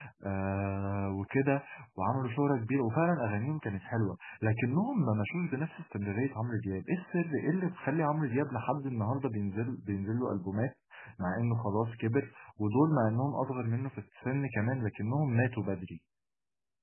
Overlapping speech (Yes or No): No